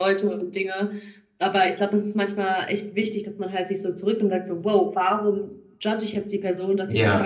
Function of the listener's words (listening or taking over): listening